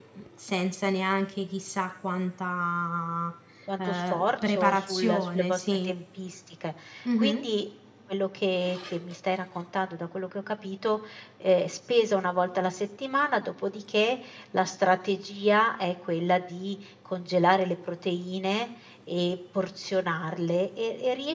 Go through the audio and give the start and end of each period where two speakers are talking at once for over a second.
3.8-5.9

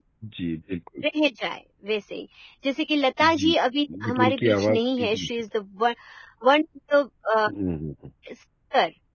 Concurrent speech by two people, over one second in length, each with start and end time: 4.0-5.3

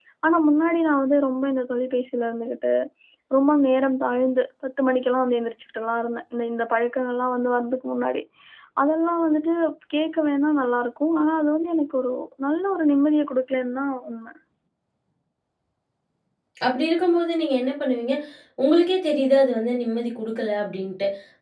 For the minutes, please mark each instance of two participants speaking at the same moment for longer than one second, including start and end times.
none

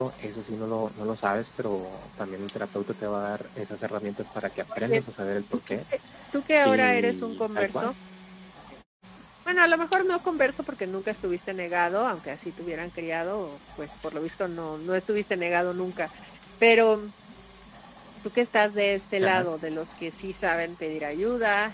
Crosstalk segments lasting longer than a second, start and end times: 6.6-7.9

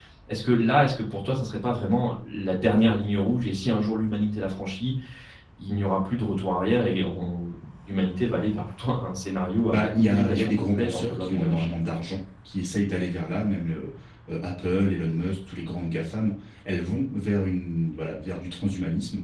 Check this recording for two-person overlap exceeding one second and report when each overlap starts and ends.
9.7-11.6

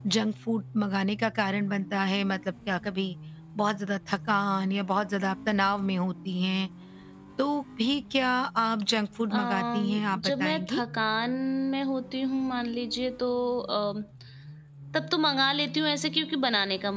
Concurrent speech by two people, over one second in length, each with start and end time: 9.3-10.8

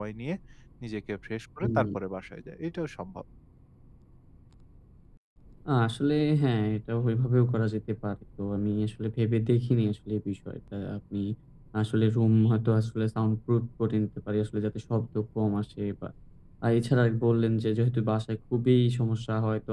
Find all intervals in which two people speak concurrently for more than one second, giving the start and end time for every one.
none

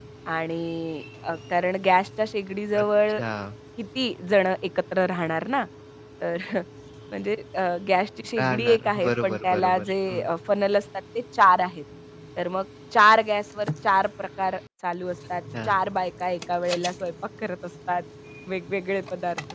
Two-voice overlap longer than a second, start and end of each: 8.4-10.2

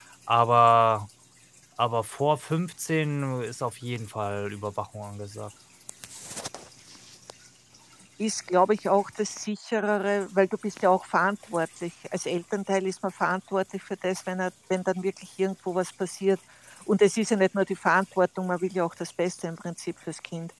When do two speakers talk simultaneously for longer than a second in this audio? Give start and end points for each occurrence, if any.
none

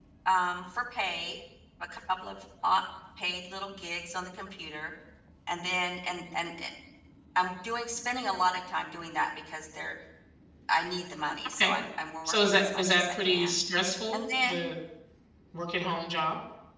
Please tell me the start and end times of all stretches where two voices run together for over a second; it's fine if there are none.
12.2-13.6

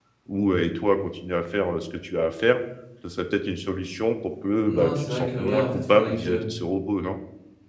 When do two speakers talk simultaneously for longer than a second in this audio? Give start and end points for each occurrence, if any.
4.6-6.4

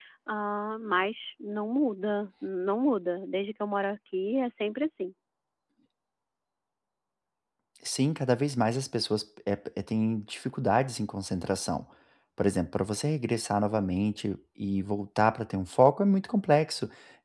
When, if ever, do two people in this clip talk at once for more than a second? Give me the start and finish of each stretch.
none

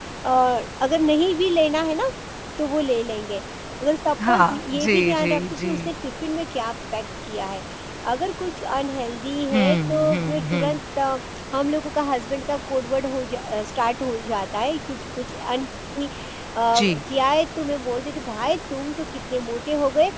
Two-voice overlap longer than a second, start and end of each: 4.3-5.9, 9.5-10.8

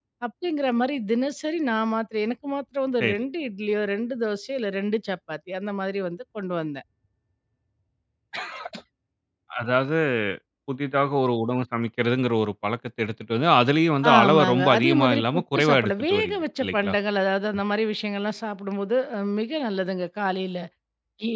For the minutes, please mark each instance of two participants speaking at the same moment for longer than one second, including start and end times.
14.1-16.9

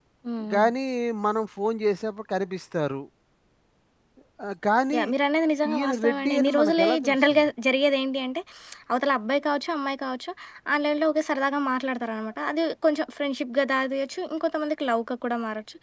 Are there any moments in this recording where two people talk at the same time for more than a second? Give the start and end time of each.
5.7-7.5

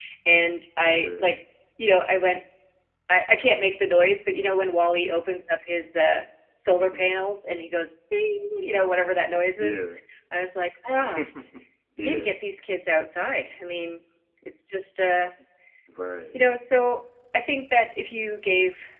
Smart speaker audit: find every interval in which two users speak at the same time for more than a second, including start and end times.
none

